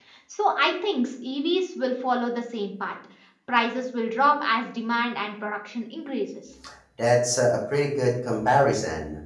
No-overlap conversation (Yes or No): Yes